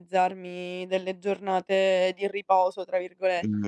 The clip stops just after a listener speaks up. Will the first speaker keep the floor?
No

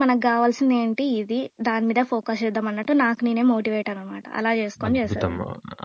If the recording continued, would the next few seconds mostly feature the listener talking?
Yes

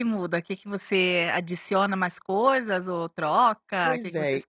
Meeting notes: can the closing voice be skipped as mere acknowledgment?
No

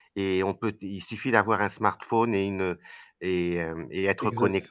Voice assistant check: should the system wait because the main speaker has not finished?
Yes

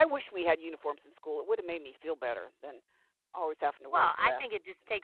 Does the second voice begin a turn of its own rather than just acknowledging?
Yes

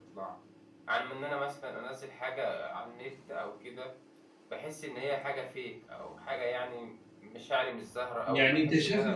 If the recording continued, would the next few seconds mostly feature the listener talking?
Yes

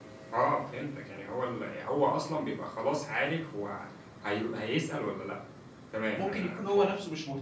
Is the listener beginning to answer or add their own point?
Yes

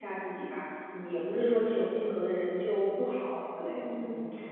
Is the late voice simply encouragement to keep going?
No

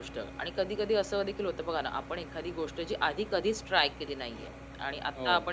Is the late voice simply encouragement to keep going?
Yes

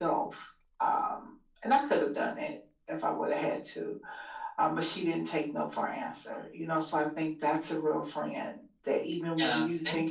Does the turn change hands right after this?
Yes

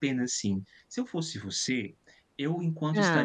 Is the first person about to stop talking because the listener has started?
No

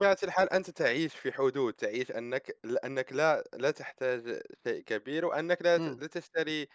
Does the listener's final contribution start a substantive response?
No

